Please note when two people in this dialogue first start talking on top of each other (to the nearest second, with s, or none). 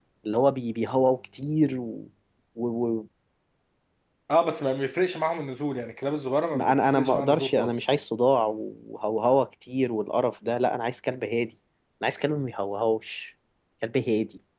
7 s